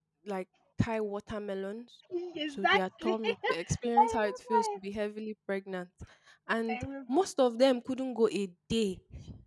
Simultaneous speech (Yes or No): Yes